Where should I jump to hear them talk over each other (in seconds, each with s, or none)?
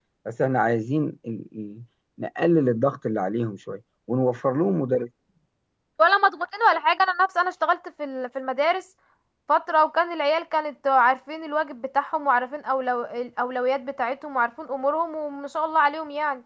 none